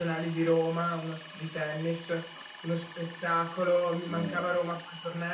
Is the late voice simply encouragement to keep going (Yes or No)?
Yes